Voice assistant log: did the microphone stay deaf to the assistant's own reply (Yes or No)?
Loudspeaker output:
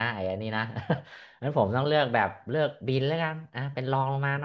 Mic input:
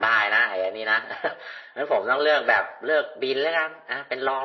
No